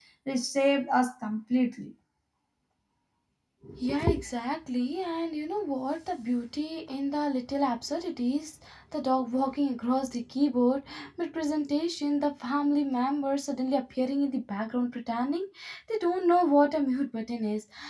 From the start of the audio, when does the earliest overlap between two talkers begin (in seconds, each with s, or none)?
none